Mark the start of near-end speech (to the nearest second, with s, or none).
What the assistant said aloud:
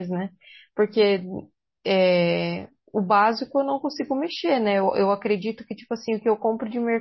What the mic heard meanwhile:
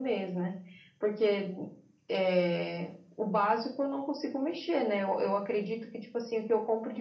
none